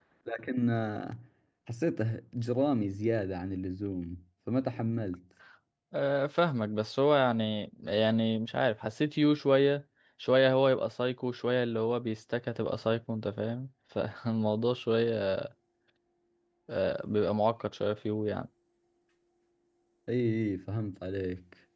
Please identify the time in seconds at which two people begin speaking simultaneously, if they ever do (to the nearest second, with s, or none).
none